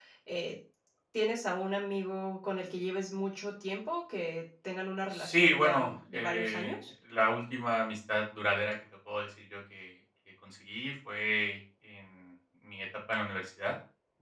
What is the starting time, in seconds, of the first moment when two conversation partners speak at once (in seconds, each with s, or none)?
5.1 s